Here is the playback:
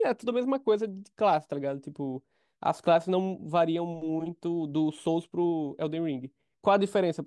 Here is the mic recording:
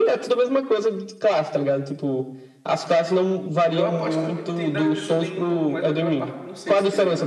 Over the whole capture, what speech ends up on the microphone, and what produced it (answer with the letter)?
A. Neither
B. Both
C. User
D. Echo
B